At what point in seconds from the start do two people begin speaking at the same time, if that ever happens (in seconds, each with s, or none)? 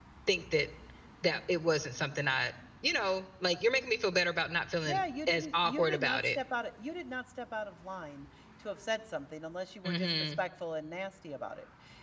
4.9 s